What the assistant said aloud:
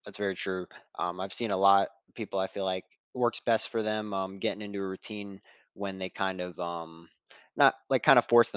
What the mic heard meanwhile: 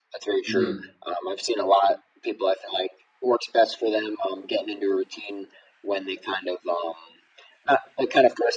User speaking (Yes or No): Yes